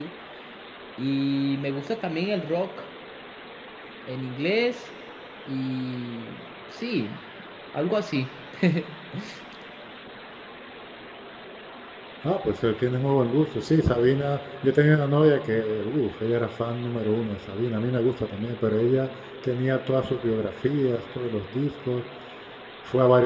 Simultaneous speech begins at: none

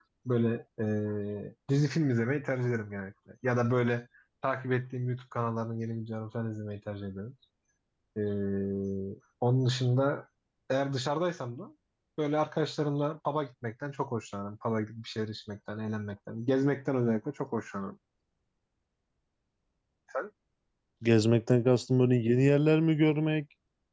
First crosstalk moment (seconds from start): none

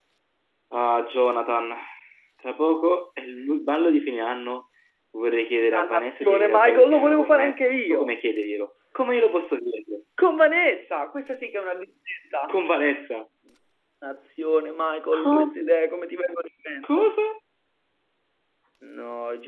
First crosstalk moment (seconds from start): 6 s

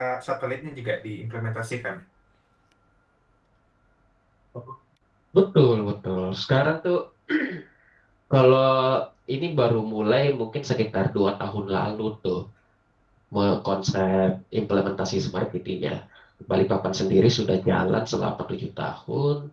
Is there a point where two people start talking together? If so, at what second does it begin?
none

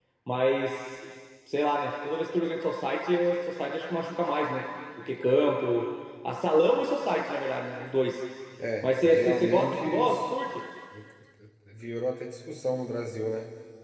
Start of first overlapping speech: 9 s

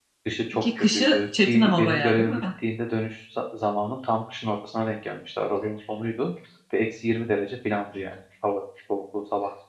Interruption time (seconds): 1 s

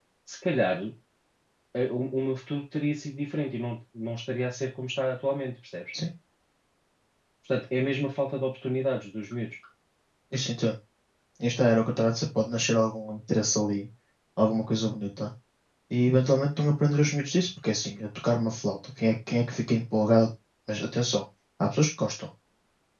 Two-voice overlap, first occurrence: none

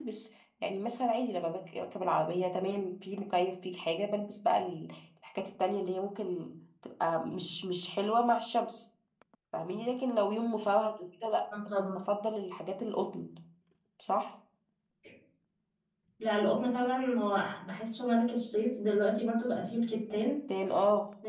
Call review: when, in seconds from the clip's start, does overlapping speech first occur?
none

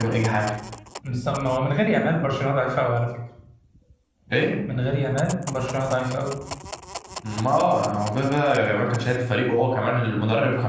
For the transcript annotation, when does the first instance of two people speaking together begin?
none

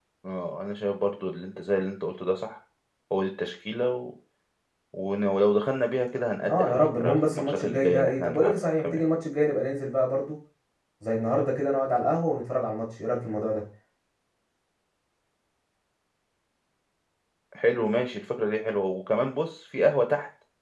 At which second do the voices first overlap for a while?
6 s

